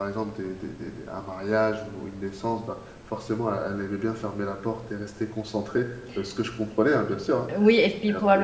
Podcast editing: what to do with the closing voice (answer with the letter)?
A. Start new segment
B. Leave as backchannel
A